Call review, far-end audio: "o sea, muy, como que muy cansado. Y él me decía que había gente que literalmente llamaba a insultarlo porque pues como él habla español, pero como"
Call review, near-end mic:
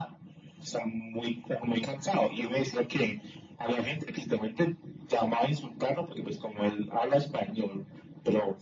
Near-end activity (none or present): none